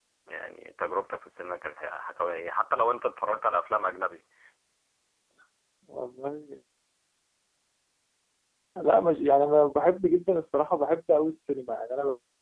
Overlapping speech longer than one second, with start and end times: none

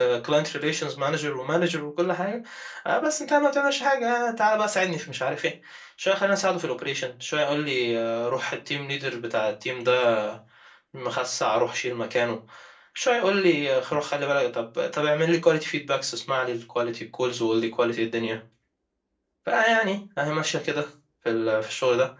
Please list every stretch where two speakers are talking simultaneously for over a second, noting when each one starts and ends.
none

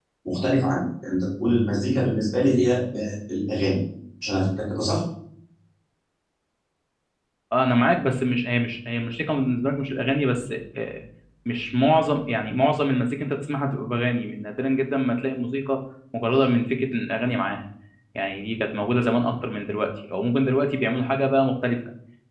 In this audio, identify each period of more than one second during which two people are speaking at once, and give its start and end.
none

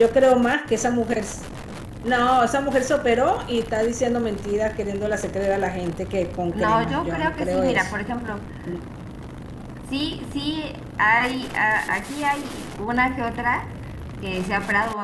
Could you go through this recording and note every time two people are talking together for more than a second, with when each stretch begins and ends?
6.5-7.9

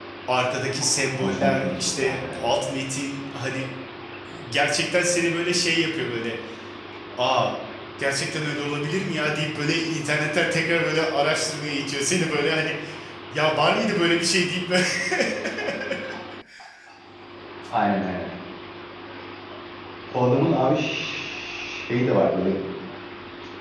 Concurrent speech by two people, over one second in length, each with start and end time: 1.2-2.5

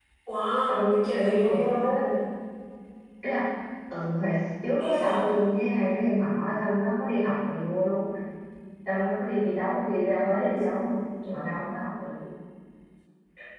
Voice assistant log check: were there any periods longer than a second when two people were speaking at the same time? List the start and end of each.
0.7-2.1

